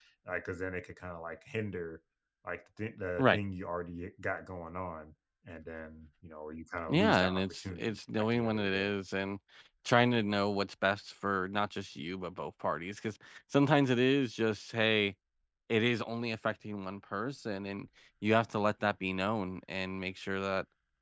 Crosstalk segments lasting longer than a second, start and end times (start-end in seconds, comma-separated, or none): 6.9-8.9